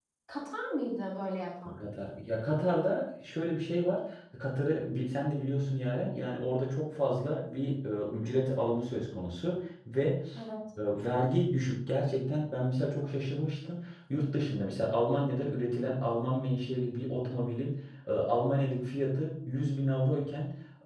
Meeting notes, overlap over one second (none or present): none